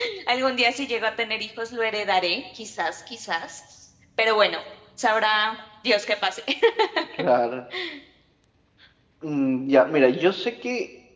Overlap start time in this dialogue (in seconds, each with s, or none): none